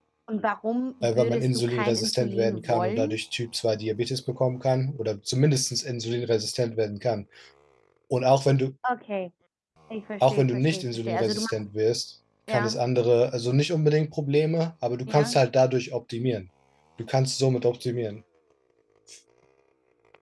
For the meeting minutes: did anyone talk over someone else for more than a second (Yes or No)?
Yes